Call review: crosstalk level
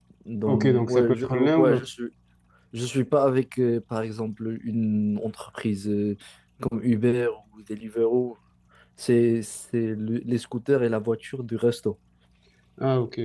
present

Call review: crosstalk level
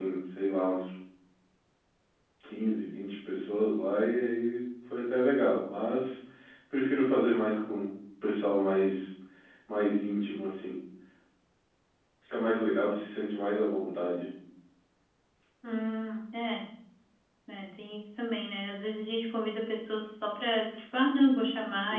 none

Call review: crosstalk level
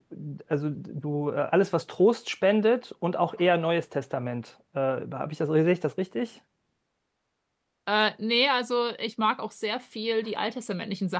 none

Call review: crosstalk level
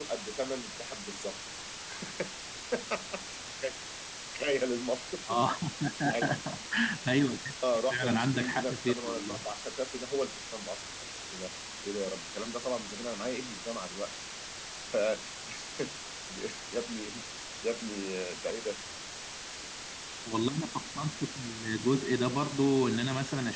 present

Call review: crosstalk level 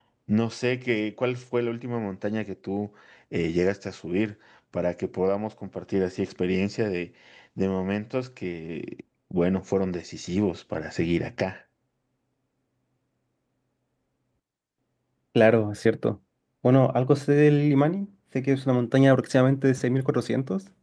none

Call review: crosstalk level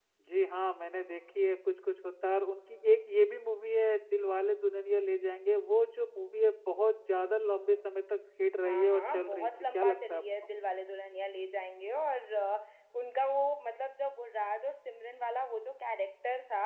present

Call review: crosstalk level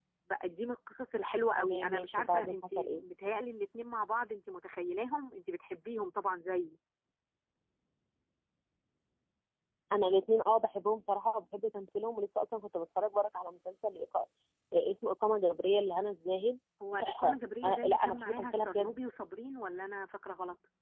present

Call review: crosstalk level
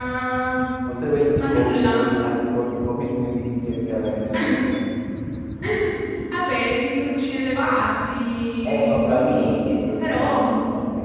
present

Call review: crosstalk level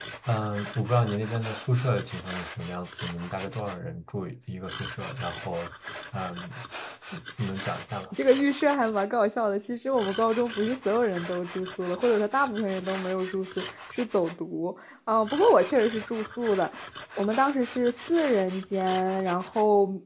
none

